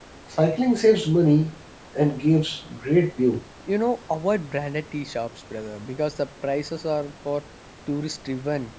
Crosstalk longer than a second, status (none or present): none